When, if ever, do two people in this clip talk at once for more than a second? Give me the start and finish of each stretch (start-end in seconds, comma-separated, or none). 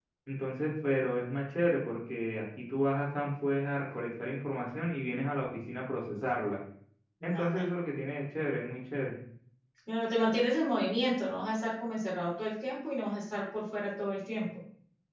none